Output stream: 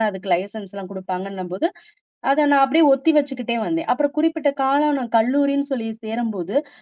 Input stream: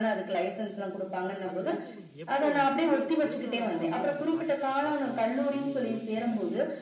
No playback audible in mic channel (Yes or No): No